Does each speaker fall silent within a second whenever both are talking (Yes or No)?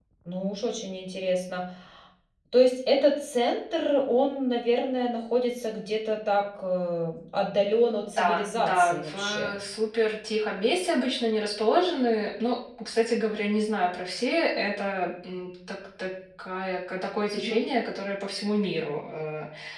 No